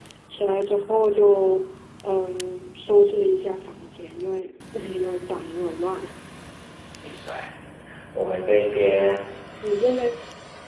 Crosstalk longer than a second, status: none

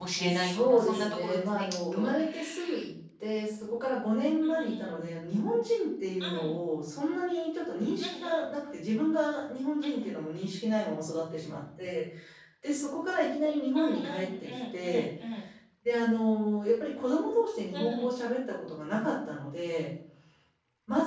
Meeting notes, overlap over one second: present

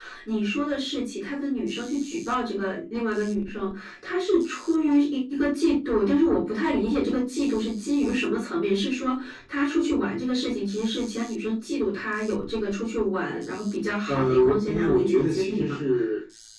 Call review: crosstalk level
present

